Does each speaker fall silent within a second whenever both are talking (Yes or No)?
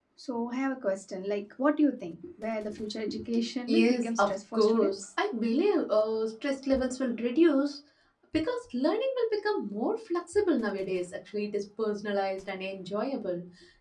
No